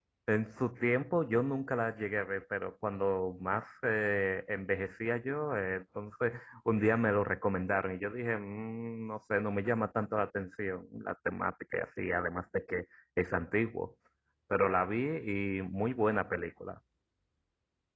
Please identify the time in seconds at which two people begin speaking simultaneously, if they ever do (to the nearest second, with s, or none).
none